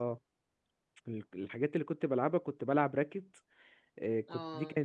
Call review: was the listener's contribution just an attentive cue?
Yes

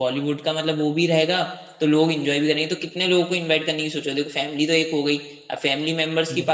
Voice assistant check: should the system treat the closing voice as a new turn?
No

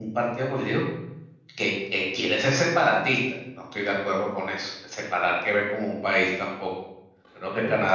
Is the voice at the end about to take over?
No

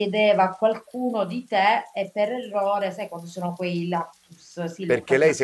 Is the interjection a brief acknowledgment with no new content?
No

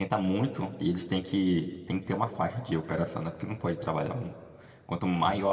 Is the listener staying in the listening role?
Yes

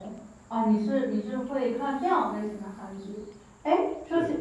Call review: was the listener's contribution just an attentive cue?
Yes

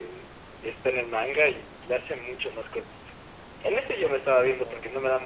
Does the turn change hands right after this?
No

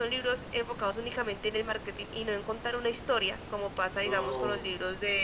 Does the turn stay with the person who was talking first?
Yes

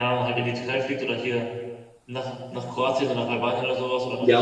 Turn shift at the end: Yes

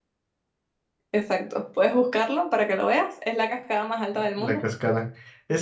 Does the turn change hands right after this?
Yes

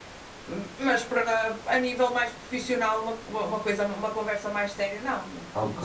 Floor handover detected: Yes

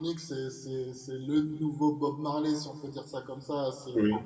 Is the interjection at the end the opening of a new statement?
No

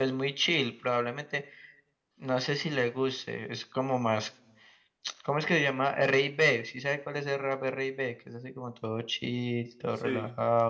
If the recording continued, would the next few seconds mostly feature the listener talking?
Yes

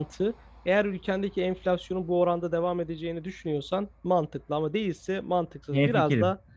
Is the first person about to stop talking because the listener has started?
No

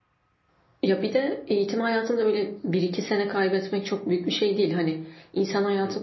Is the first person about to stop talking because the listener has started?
No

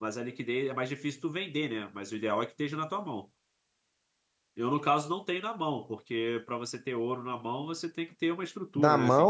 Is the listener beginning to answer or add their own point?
Yes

